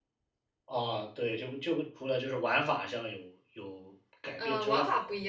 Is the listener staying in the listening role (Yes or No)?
No